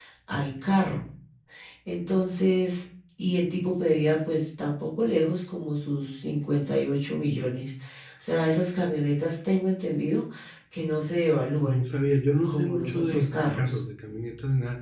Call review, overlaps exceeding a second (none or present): present